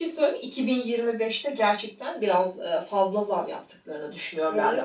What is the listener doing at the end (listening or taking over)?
listening